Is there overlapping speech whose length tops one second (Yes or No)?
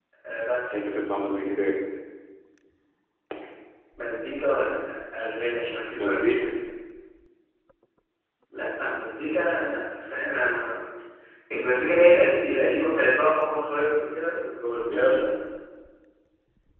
No